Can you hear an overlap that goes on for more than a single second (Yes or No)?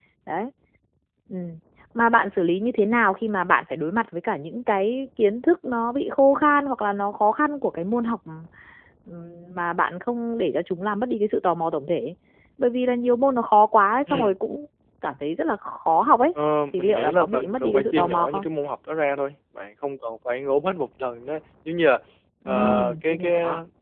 Yes